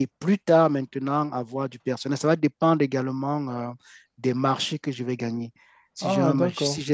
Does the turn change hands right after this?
No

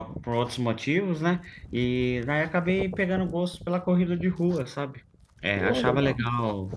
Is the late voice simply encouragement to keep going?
Yes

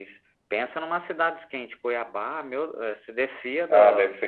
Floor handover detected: Yes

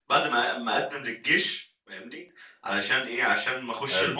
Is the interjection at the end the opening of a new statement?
No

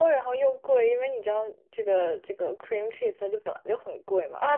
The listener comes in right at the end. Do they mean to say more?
Yes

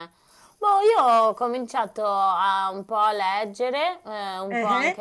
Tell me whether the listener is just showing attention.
Yes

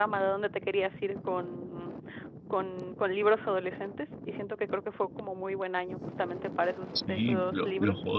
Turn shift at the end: Yes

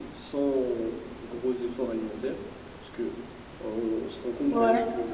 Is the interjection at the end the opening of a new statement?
No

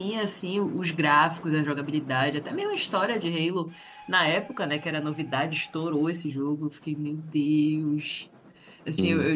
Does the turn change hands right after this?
No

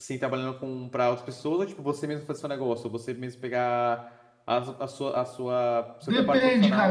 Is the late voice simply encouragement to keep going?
No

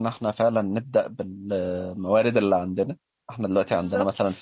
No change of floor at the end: Yes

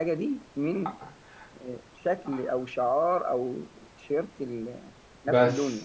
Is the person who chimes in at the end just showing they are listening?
No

